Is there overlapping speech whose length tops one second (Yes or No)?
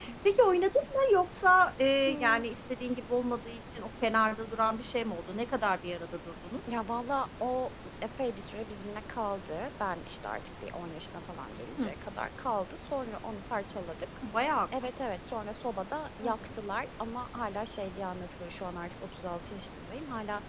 No